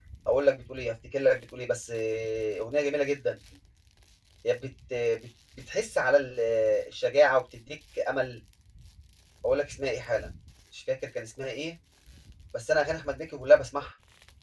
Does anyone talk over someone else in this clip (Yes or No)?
No